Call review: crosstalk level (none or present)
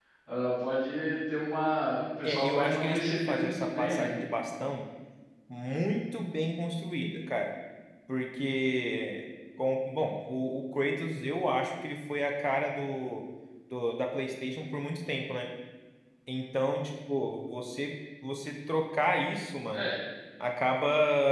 present